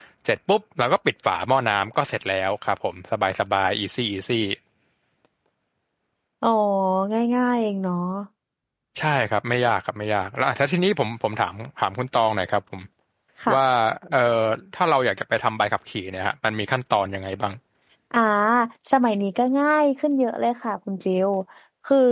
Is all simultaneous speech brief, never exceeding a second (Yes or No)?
Yes